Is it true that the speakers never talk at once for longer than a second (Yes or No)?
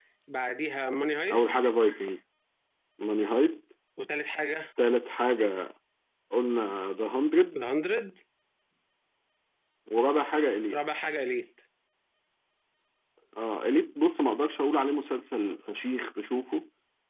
Yes